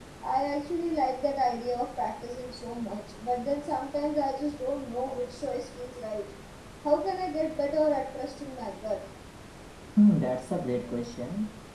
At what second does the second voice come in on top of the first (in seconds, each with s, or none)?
none